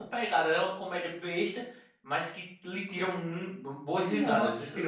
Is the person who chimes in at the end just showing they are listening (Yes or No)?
No